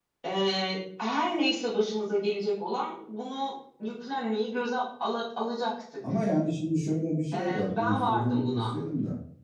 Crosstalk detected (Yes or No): Yes